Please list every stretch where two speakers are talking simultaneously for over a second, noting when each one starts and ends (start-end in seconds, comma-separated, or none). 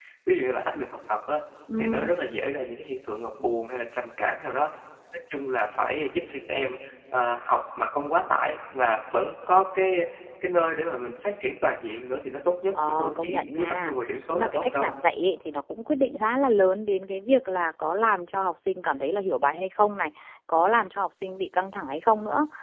12.9-14.9